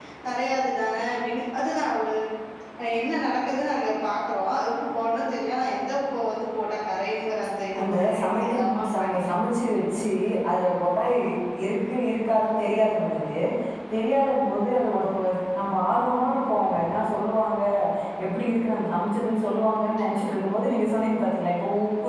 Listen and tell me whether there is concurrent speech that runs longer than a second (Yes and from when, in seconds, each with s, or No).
Yes, from 7.7 s